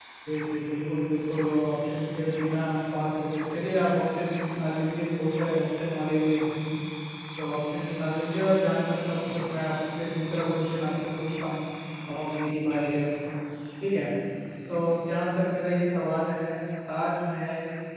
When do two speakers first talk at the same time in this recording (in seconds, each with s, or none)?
none